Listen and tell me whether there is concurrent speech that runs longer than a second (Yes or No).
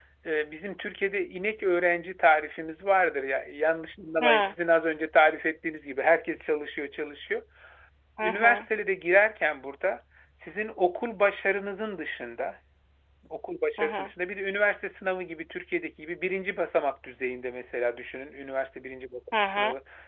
No